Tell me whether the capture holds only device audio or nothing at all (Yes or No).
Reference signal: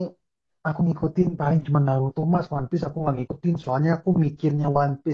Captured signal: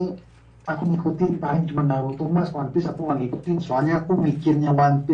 Yes